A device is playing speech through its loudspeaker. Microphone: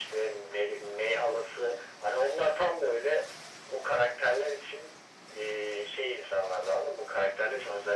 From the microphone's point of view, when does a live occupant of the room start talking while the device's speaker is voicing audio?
none

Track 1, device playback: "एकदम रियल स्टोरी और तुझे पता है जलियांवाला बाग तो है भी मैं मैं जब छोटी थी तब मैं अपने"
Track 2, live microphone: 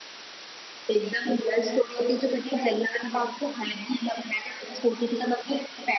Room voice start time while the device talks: none

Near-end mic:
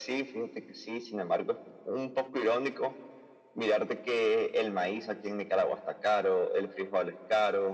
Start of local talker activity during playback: none

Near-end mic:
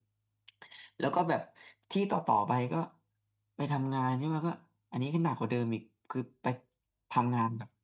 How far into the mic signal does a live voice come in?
none

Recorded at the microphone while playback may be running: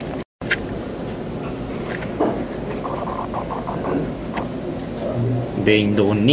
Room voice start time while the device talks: 5.1 s

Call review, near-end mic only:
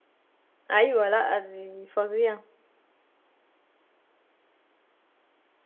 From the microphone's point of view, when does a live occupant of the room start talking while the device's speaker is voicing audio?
0.7 s

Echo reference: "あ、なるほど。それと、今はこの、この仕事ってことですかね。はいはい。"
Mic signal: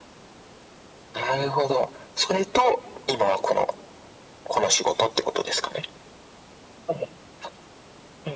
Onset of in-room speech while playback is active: none

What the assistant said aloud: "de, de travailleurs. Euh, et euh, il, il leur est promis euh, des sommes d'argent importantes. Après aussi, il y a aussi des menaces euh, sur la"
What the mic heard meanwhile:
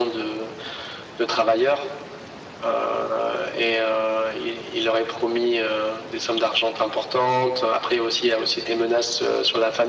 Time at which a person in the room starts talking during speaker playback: none

